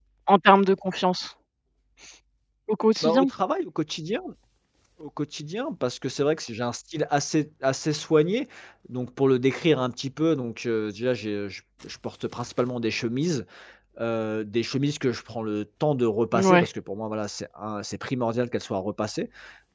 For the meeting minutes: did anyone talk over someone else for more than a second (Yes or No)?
No